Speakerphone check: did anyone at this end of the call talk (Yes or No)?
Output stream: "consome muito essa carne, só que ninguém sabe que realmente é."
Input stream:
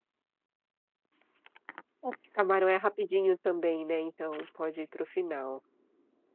Yes